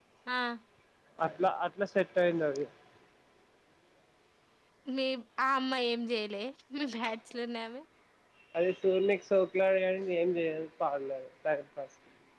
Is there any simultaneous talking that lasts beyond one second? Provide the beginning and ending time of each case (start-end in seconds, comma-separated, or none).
none